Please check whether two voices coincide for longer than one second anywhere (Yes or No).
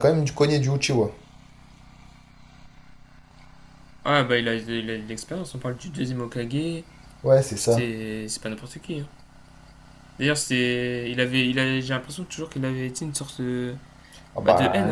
No